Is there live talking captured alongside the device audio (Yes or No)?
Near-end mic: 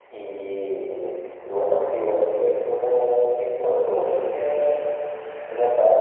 No